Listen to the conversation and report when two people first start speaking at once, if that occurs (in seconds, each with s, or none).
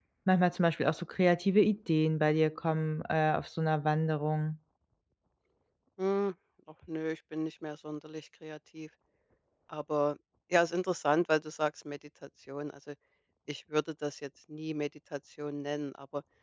none